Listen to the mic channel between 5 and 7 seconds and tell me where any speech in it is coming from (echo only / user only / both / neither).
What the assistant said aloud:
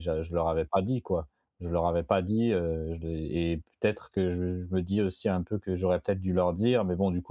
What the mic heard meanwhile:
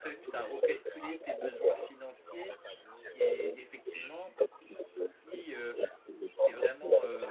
both